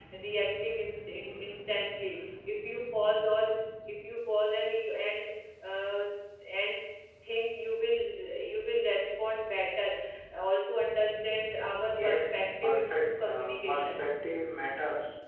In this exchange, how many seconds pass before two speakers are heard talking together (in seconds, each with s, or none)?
11.9 s